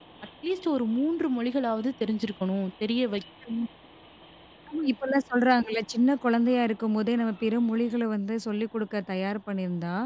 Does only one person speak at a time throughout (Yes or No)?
Yes